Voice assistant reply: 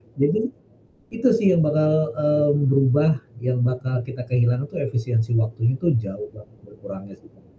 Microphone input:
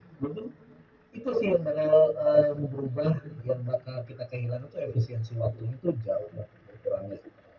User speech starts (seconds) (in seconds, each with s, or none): none